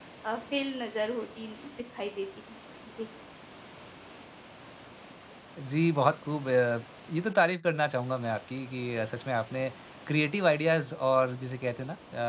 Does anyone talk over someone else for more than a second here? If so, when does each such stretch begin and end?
none

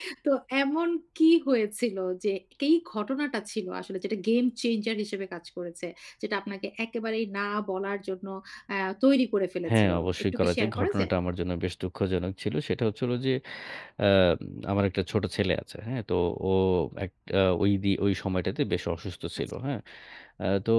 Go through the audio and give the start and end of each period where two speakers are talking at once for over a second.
9.7-11.1

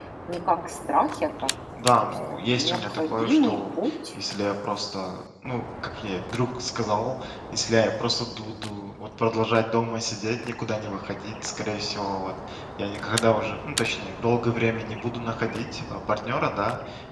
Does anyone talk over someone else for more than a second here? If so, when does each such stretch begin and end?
1.9-3.8

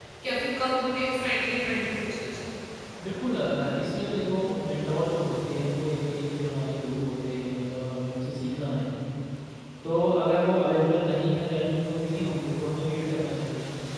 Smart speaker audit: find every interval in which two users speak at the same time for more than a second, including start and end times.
none

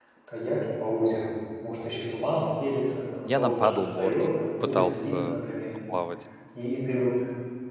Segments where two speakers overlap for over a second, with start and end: 3.3-5.5

